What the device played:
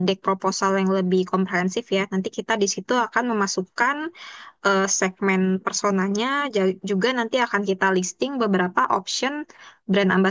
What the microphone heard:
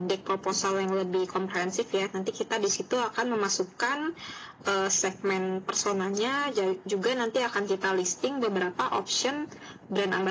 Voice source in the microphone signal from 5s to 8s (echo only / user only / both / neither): echo only